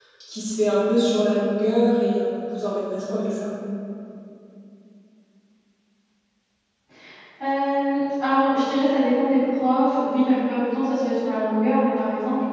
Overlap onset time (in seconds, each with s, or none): none